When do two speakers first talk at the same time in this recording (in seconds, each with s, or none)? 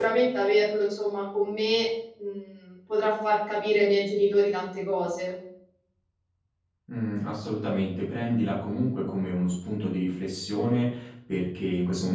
none